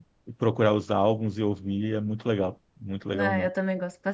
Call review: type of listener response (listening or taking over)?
taking over